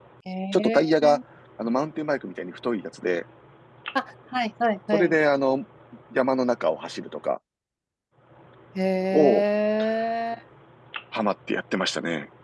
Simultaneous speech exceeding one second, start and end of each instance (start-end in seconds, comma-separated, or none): none